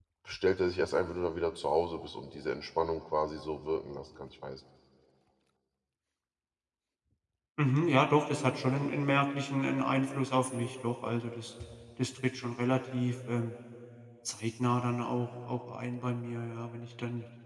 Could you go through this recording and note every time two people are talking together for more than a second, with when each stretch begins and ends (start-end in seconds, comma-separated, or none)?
none